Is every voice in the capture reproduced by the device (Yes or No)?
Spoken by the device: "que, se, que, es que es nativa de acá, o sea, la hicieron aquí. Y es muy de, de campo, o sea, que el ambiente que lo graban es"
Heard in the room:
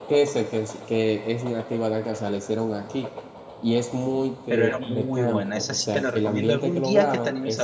No